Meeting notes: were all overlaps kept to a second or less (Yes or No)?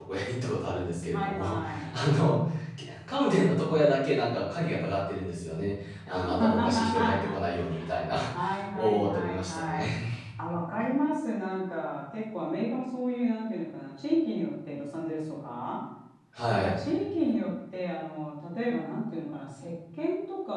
No